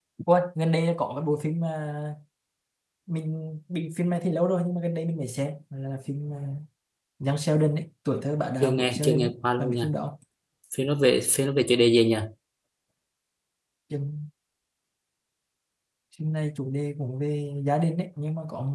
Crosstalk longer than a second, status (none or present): present